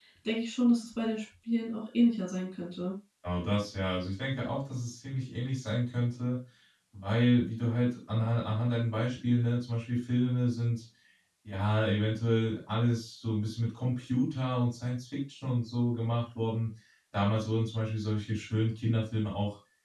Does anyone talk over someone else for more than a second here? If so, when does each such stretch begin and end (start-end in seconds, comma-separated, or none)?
none